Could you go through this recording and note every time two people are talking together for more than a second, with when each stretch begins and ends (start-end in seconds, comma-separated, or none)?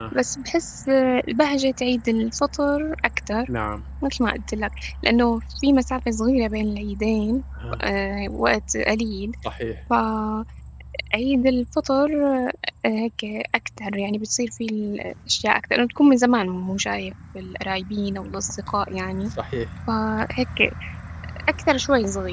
none